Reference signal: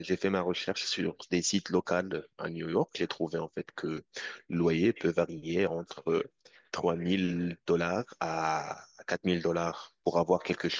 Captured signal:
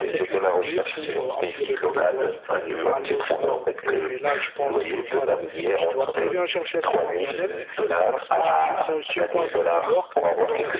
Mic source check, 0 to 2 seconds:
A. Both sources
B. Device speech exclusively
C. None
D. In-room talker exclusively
A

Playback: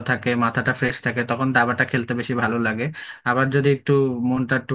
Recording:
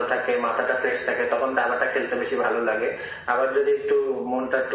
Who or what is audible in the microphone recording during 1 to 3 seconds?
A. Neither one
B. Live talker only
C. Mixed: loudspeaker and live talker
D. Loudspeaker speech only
D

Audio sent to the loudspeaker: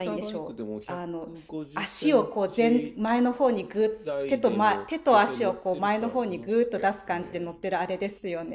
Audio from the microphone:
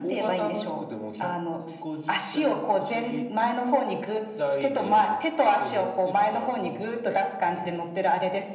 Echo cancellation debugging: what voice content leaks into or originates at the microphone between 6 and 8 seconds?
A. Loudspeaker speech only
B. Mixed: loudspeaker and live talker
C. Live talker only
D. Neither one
A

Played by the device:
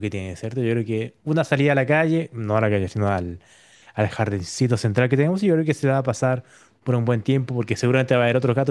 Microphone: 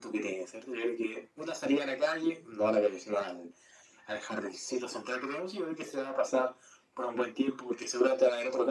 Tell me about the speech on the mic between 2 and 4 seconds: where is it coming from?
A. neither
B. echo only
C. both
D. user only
B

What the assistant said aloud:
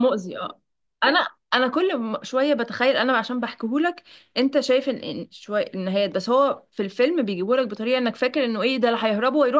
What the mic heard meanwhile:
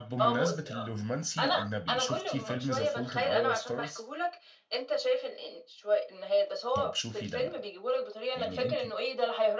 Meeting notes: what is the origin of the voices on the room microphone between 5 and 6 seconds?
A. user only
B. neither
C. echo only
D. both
C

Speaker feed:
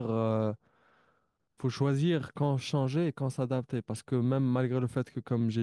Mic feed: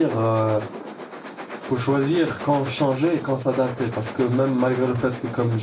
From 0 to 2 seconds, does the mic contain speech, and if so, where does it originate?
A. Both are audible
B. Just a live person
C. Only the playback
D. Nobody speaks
C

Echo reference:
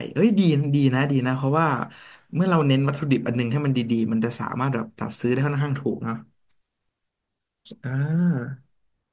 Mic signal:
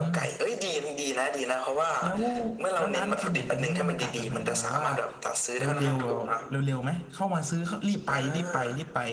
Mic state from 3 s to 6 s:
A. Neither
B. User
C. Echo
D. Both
D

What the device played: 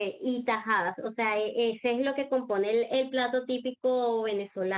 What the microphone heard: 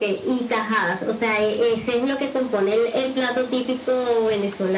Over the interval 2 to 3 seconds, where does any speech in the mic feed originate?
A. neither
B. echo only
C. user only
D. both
B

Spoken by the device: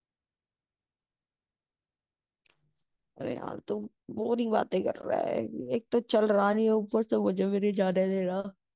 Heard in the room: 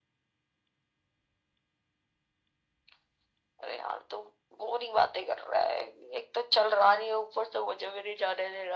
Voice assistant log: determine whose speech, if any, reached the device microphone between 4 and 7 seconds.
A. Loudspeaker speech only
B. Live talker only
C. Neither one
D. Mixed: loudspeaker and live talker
A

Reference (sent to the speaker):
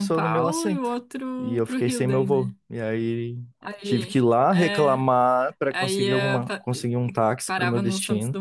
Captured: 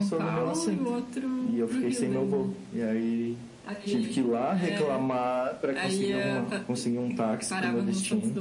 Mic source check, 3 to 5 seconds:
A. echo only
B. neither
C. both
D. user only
A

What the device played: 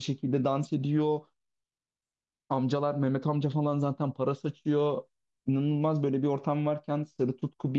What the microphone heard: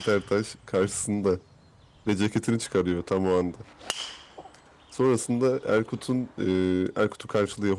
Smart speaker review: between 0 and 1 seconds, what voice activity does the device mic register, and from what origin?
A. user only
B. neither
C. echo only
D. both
A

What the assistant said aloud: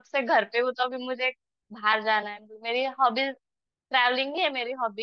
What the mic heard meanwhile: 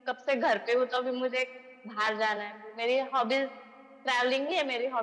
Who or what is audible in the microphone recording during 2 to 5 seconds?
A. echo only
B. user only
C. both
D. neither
A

